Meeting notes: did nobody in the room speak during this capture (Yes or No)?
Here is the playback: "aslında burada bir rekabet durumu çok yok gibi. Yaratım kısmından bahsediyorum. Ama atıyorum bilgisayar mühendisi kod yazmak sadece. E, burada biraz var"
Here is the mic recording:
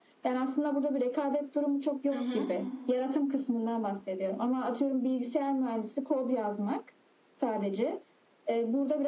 No